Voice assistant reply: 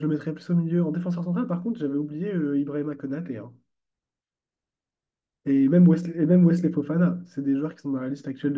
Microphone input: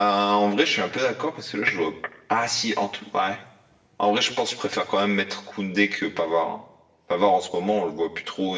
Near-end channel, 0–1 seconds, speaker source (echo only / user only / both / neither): user only